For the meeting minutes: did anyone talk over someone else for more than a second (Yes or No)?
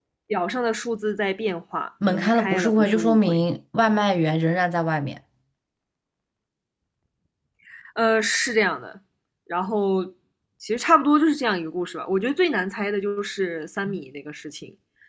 Yes